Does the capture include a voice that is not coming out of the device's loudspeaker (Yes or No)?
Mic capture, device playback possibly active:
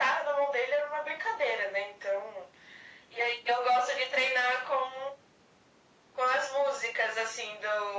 No